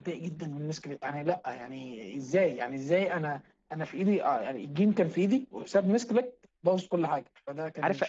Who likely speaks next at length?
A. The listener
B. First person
A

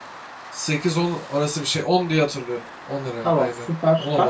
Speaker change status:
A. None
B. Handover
B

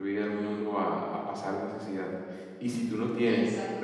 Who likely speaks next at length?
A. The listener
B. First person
B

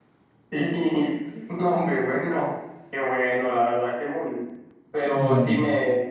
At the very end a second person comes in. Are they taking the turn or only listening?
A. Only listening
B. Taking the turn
A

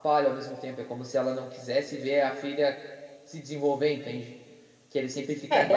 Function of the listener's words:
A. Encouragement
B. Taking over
B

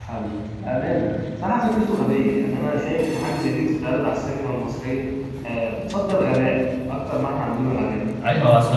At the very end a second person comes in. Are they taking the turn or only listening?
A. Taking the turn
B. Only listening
A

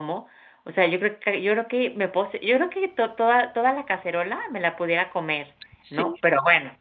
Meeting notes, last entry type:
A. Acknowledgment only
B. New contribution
A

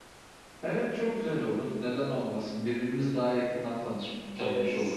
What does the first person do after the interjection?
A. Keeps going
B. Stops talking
B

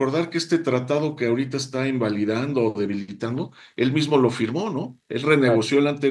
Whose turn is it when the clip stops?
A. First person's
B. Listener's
A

